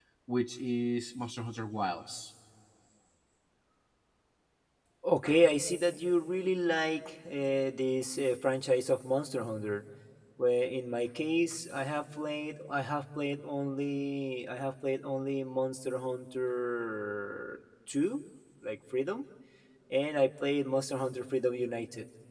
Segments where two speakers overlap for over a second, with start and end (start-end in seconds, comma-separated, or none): none